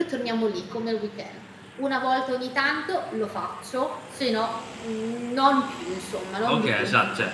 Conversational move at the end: taking over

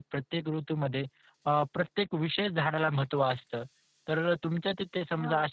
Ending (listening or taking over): listening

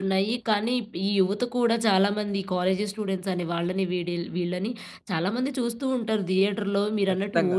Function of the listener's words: taking over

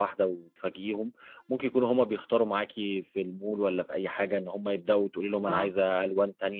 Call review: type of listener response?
listening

